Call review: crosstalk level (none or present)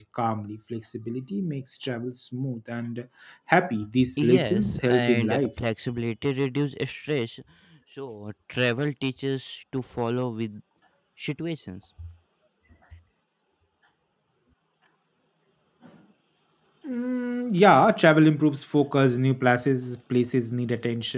present